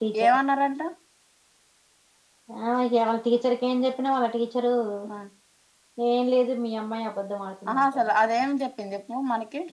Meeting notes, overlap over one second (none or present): none